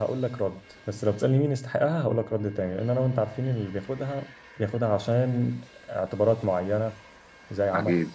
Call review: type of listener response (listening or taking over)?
listening